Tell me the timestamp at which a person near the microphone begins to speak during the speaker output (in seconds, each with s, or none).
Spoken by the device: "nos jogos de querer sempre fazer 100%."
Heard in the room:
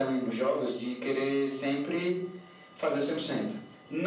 none